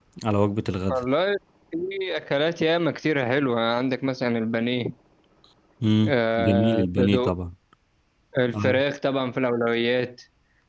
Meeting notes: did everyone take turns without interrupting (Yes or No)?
No